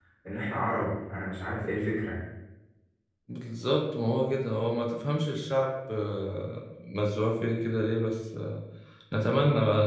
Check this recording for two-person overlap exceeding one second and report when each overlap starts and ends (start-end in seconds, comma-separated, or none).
none